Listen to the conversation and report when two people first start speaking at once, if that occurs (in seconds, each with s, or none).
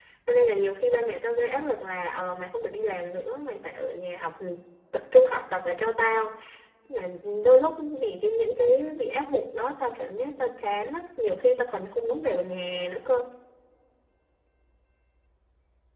none